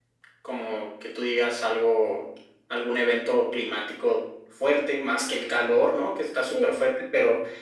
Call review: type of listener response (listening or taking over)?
listening